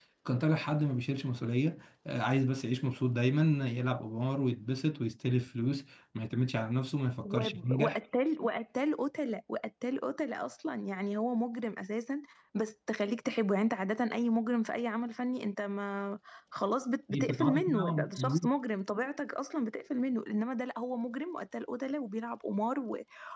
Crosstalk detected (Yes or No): Yes